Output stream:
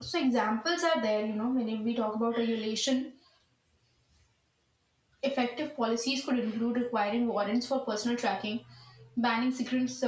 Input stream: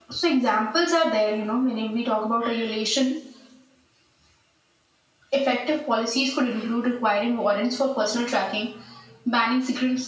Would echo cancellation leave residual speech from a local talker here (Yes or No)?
No